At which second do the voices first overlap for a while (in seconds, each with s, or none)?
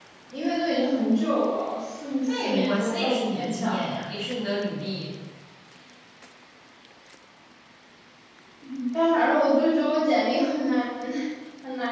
2.3 s